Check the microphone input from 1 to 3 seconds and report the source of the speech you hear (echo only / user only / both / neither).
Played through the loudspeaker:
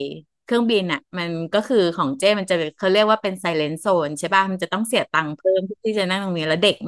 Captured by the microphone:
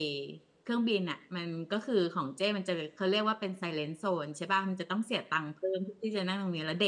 echo only